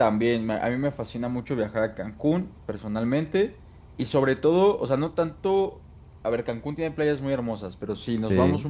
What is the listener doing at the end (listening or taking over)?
listening